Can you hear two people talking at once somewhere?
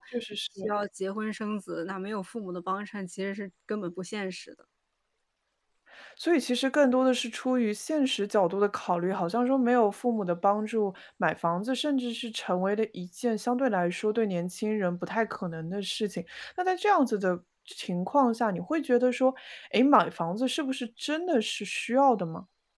No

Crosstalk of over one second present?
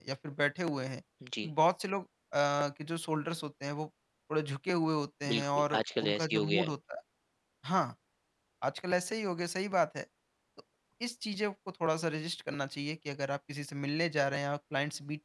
Yes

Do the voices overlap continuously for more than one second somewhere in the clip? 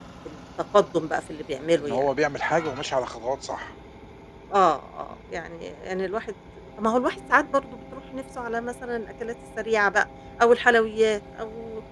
No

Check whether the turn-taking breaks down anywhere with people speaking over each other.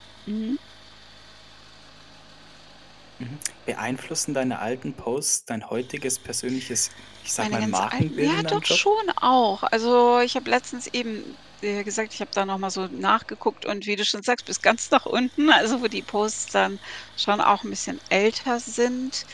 Yes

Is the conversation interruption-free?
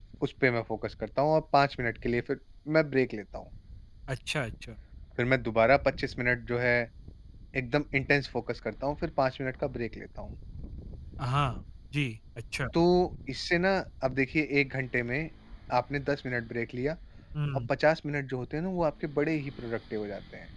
Yes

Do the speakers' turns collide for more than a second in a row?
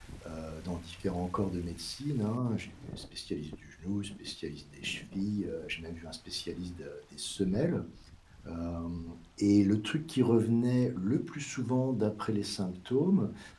No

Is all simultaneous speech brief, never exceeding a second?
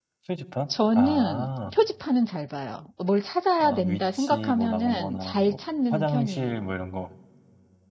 No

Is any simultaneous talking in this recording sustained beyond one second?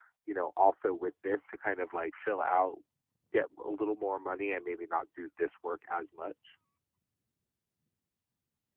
No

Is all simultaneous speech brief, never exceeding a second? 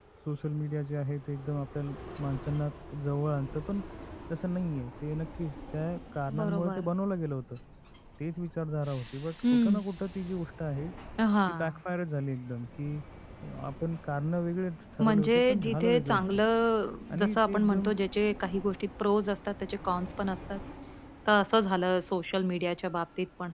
No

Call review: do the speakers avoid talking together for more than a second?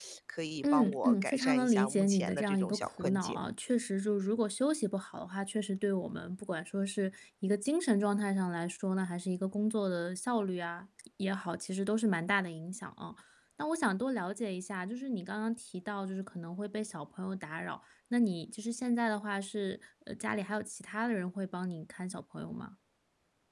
No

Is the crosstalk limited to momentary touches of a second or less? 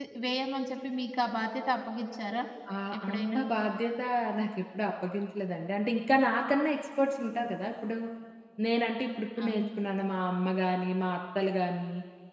Yes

